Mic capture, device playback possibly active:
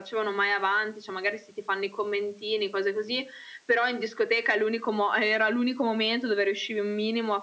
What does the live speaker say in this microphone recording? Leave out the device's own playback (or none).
none